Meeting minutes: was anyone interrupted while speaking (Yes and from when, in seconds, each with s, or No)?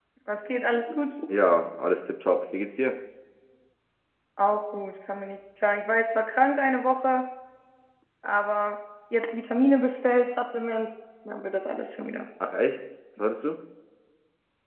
No